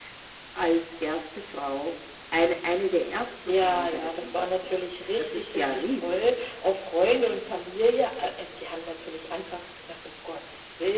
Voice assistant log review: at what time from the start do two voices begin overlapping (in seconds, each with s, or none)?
3.5 s